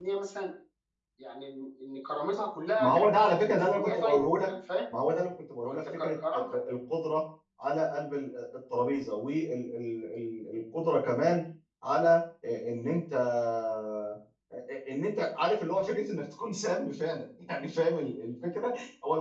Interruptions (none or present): present